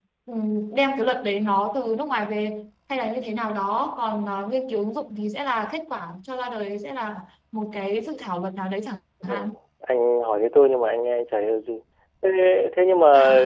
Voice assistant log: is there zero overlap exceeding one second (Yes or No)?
Yes